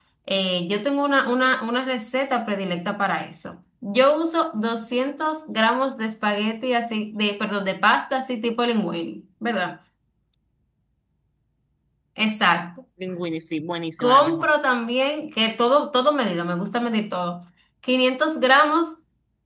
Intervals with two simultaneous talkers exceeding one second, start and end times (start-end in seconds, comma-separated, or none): none